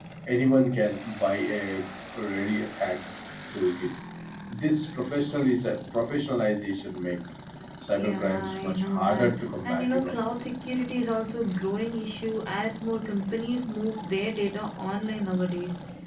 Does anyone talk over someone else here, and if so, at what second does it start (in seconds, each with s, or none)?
8.0 s